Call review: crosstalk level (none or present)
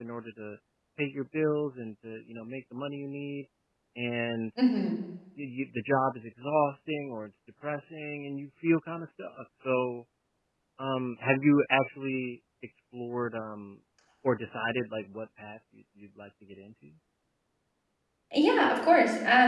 none